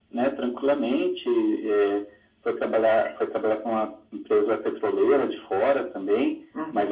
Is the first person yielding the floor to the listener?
Yes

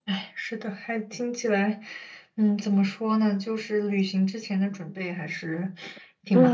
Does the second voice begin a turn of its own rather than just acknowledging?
Yes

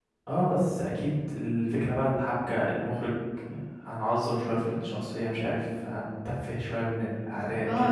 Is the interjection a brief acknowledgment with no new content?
No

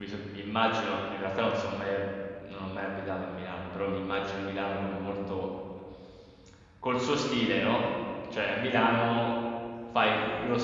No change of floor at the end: Yes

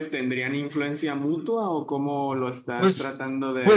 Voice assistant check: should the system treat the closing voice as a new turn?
Yes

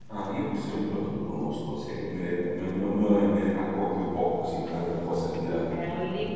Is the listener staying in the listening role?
No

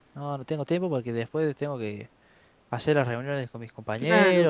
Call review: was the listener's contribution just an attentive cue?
No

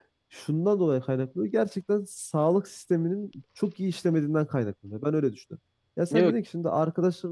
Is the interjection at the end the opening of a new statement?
No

